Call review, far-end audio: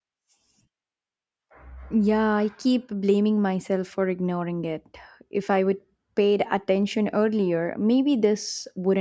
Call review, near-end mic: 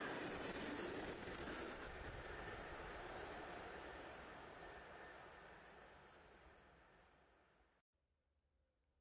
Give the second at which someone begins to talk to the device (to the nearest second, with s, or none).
none